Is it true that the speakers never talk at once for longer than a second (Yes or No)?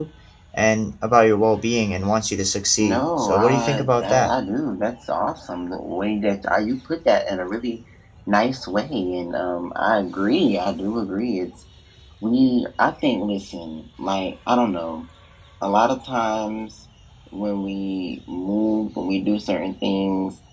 No